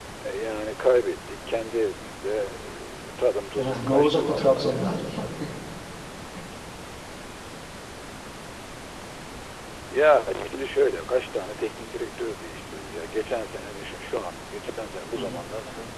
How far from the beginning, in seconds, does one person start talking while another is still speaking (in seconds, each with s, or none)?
3.6 s